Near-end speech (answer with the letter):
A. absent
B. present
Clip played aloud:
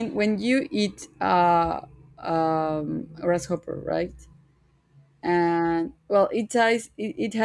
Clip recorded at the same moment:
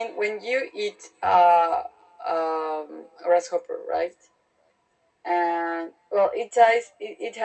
A